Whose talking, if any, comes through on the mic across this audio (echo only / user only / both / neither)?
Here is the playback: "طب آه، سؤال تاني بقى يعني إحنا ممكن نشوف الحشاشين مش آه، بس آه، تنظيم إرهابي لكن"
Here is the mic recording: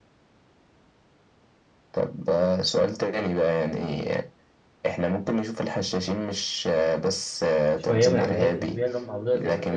both